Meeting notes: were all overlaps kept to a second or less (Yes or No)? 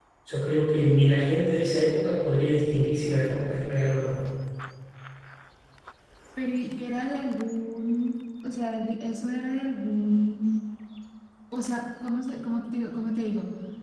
Yes